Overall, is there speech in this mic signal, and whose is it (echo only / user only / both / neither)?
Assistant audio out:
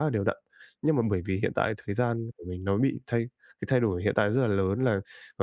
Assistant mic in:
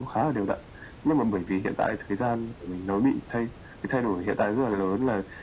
echo only